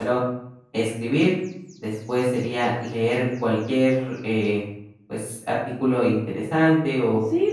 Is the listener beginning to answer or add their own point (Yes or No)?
Yes